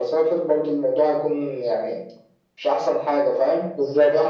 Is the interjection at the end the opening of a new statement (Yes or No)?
Yes